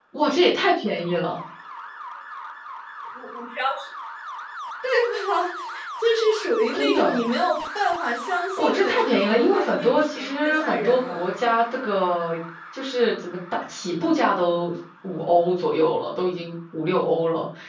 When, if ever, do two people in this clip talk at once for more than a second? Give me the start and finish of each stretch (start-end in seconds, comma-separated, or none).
8.6-11.2